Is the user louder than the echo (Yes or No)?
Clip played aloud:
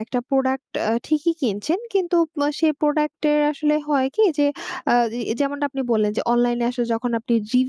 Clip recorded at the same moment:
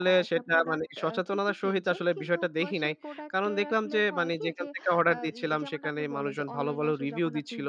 Yes